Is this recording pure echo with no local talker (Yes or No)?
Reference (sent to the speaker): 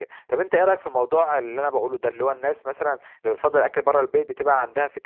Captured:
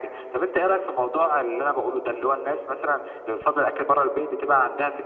Yes